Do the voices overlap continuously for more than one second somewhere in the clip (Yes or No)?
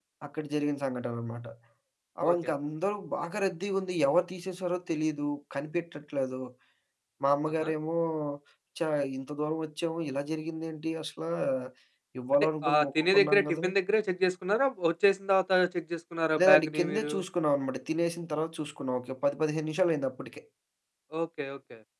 Yes